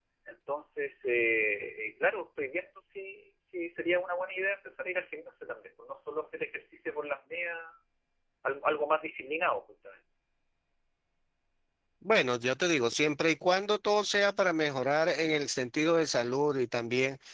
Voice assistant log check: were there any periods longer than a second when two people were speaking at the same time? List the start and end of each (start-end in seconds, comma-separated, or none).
none